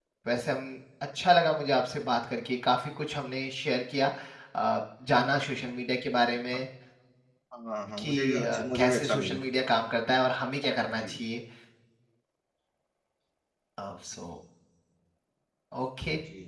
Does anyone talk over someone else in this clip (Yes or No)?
Yes